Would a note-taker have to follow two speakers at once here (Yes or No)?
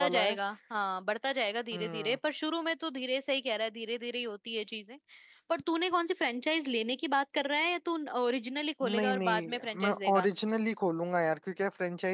Yes